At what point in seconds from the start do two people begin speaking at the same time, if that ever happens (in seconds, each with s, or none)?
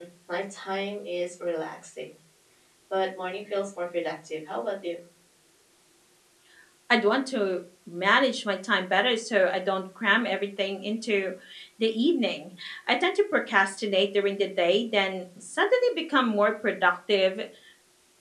none